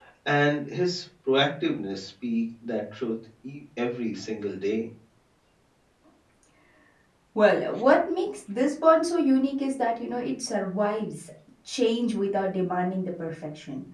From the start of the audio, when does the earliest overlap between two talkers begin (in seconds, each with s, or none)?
none